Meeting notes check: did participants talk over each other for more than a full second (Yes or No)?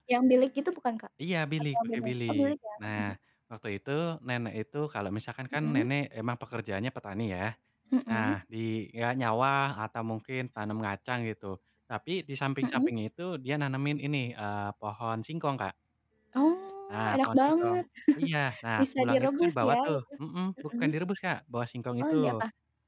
Yes